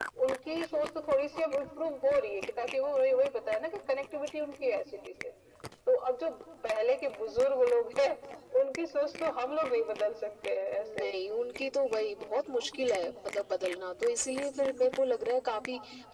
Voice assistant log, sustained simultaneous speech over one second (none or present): none